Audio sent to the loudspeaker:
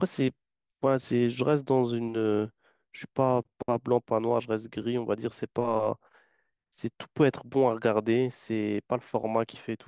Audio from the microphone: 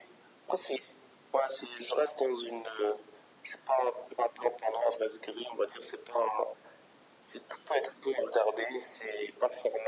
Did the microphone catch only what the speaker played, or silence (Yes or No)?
Yes